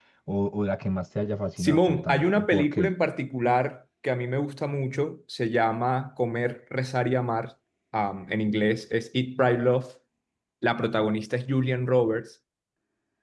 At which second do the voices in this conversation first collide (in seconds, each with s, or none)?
1.6 s